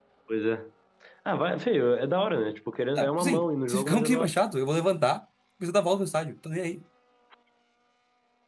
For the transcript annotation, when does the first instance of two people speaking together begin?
3.0 s

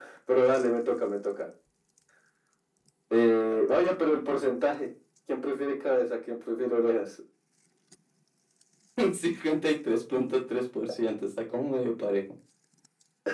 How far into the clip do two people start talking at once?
none

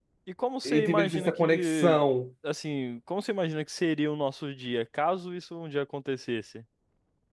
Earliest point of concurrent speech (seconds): 0.7 s

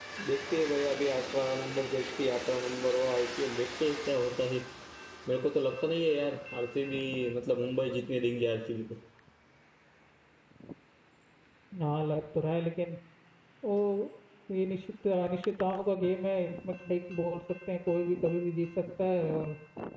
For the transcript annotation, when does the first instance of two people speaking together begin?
none

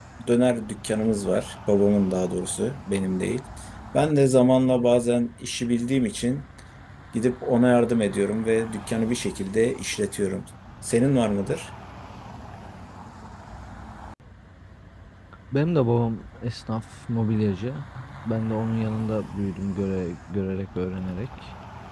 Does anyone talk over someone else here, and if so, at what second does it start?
none

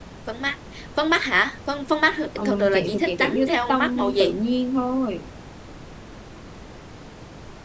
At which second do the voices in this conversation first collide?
2.4 s

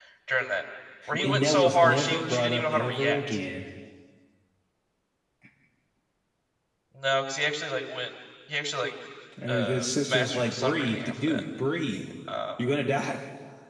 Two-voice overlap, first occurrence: 1.2 s

